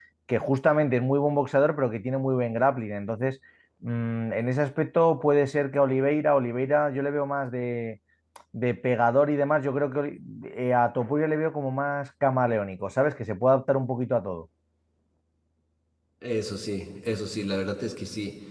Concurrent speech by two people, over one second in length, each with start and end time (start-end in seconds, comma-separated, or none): none